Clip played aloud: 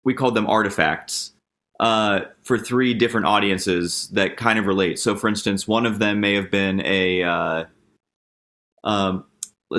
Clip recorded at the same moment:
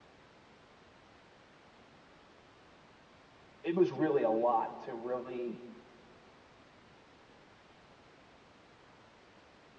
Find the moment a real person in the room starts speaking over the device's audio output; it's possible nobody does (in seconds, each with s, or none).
3.6 s